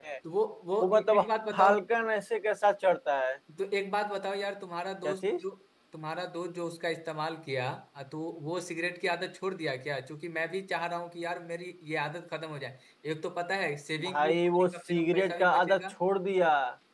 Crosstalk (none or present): present